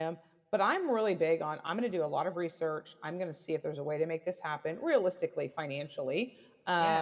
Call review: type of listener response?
listening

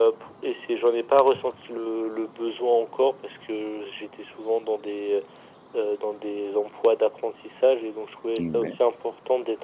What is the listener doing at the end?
listening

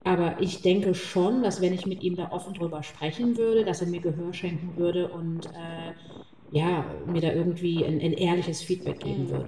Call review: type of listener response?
taking over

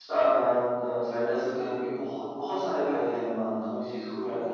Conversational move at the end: listening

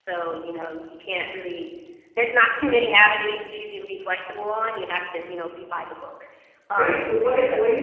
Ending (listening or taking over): taking over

